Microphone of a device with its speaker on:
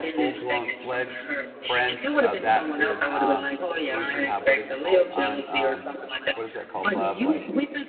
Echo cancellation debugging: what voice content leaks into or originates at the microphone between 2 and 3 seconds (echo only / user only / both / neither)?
both